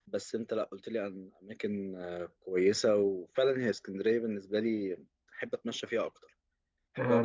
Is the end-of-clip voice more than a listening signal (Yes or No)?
Yes